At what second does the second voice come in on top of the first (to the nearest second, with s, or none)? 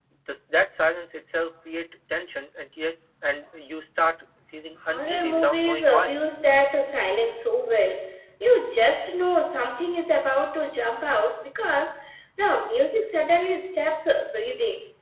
5 s